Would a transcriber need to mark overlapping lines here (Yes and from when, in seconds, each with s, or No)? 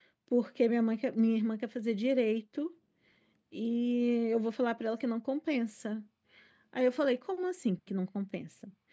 No